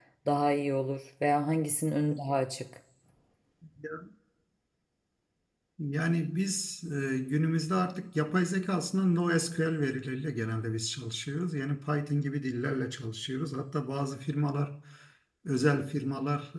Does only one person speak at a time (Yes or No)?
Yes